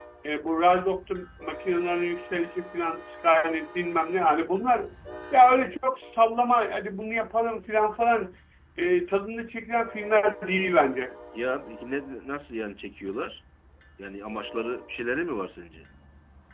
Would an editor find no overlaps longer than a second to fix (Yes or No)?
Yes